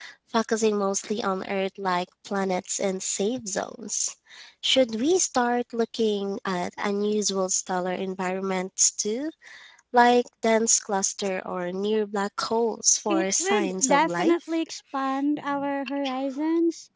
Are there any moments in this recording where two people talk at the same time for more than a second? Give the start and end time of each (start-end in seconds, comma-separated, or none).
13.1-14.3